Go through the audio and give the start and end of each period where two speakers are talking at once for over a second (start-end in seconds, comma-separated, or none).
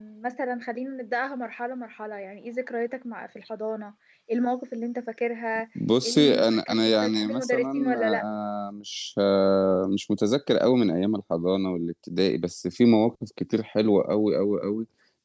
6.0-8.2